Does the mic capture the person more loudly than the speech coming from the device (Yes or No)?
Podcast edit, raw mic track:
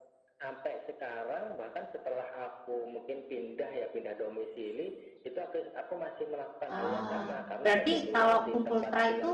Yes